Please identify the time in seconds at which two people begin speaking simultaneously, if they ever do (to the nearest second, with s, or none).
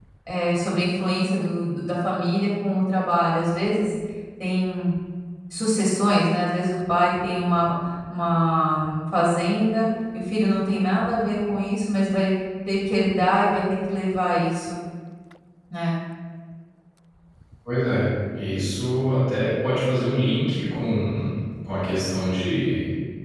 none